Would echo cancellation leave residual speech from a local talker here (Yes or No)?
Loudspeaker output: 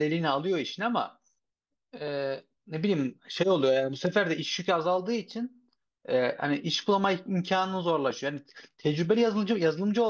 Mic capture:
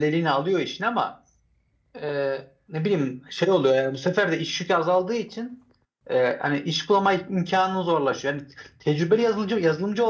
No